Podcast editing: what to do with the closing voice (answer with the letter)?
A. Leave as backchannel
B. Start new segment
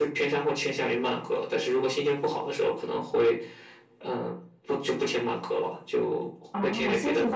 B